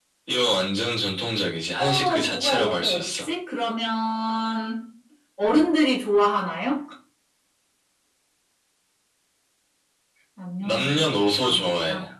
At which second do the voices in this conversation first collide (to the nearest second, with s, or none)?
2 s